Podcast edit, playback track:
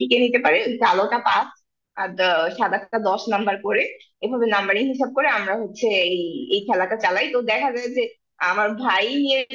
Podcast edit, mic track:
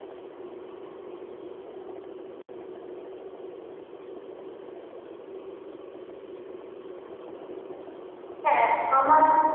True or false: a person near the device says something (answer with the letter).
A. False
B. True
B